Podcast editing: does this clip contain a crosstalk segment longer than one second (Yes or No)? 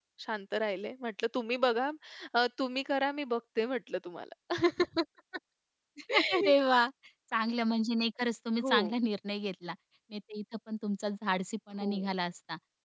No